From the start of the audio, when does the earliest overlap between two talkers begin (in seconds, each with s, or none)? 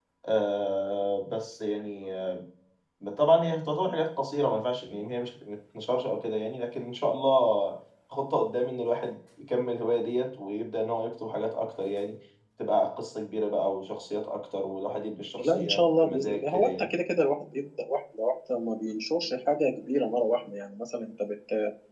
15.4 s